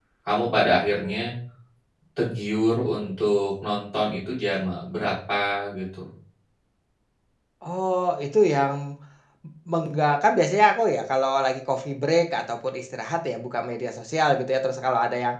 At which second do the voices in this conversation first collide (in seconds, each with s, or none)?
none